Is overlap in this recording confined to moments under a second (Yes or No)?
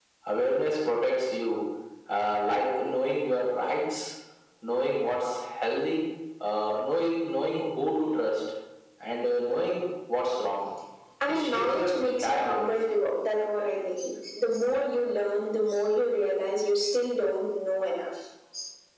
No